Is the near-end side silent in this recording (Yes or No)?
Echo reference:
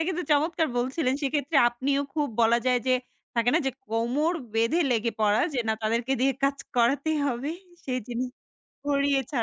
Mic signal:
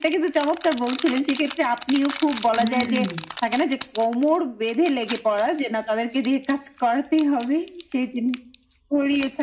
No